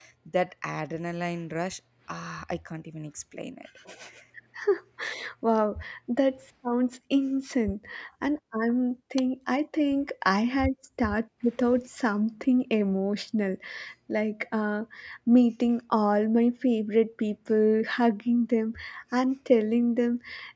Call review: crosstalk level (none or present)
none